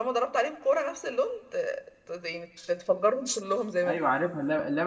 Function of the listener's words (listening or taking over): taking over